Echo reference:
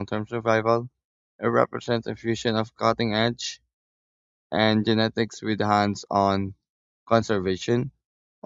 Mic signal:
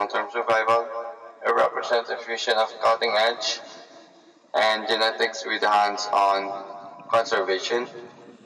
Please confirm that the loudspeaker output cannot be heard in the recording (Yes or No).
No